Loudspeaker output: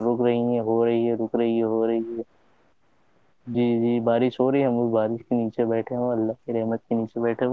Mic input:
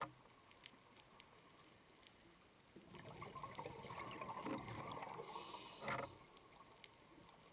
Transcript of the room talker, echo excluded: none

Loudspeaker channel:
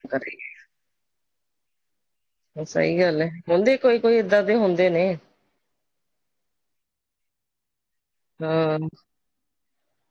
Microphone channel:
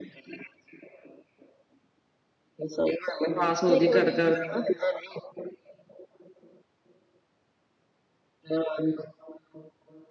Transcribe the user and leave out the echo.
ਆਸ ਉਹਦੀ ਕਰ ਕਰਦੀ

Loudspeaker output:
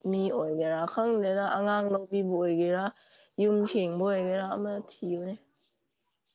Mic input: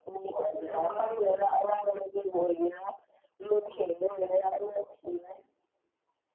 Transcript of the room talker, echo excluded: ꯑꯗꯨ ꯑꯔꯆꯅꯥ ꯍꯣꯏꯁꯨ ꯀꯩꯝ ꯍꯥꯏꯔꯛꯇꯦ

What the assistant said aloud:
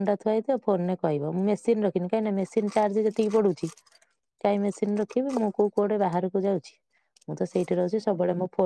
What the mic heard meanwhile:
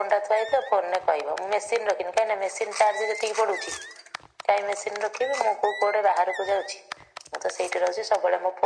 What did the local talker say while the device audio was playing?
none

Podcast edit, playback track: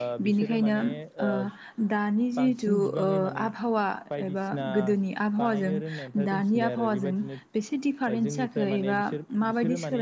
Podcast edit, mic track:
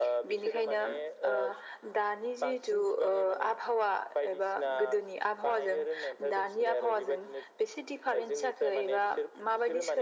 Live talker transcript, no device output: none

